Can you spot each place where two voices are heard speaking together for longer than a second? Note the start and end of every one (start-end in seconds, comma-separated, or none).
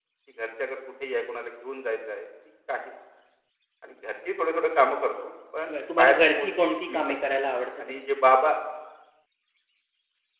5.7-7.0